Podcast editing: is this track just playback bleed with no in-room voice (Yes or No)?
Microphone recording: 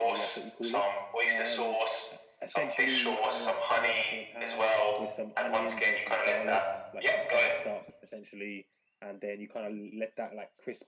No